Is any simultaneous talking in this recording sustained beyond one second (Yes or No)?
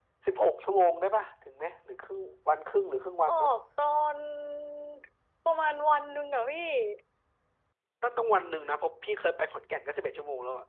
No